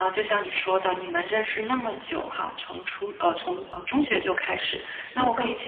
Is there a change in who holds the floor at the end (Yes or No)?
No